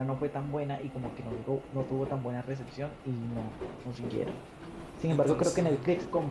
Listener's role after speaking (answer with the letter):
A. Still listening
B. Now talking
A